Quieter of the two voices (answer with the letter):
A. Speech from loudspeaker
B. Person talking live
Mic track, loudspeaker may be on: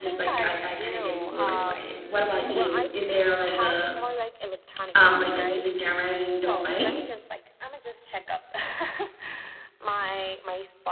A